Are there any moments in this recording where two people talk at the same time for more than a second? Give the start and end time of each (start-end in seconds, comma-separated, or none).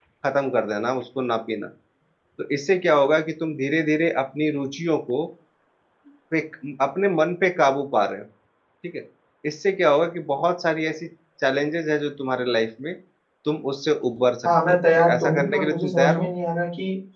14.5-16.3